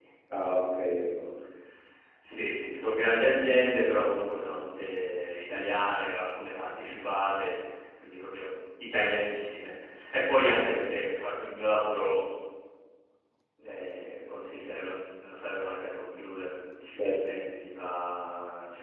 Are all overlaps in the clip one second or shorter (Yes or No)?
Yes